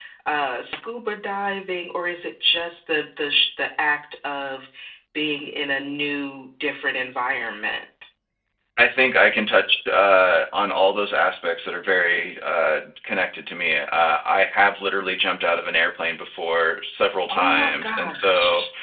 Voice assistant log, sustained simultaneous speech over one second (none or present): present